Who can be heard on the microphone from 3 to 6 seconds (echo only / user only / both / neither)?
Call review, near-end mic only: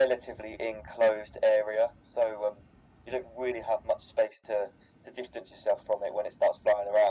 echo only